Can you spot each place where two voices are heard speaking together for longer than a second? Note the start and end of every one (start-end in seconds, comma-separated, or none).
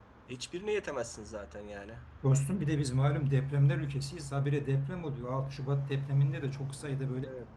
none